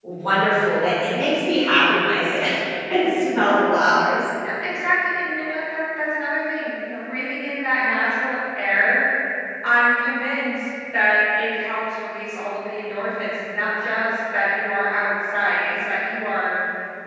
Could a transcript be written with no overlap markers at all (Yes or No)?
Yes